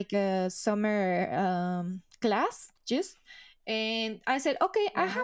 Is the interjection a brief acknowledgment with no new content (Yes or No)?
Yes